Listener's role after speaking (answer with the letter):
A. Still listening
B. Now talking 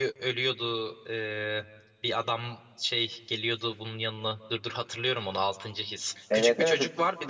A